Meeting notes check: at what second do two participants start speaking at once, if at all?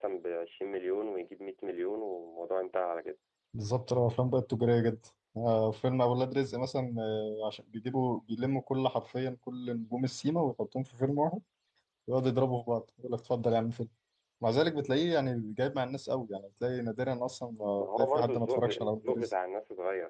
17.8 s

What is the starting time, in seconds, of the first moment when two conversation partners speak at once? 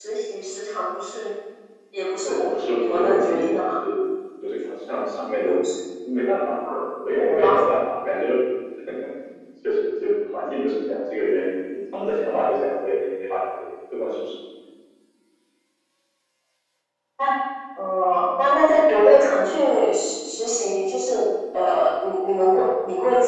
2.3 s

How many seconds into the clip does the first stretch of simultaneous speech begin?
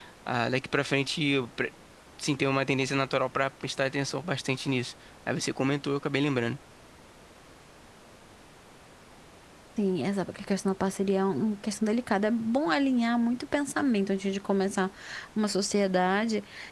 none

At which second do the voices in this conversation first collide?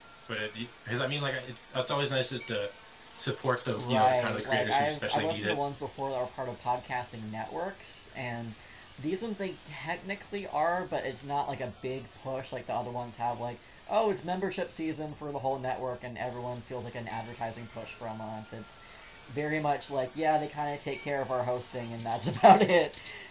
3.8 s

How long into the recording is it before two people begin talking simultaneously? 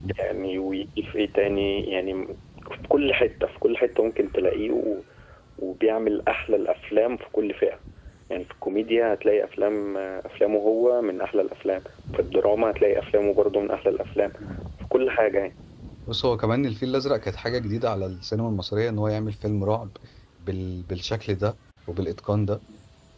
none

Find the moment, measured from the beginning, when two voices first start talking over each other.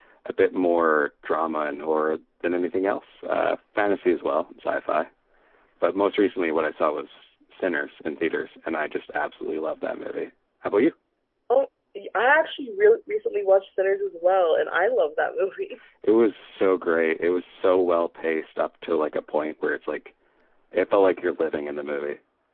none

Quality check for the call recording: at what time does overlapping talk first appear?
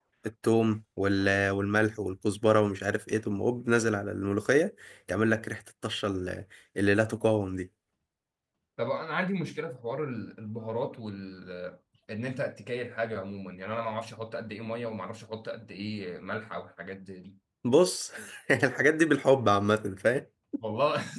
none

